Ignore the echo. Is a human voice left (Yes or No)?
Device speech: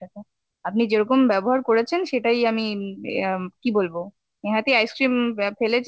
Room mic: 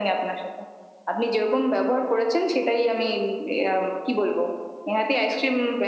No